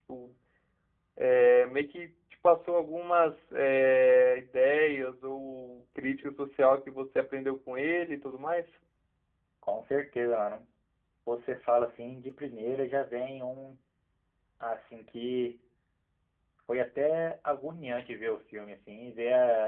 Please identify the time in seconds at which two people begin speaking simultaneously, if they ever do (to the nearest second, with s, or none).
none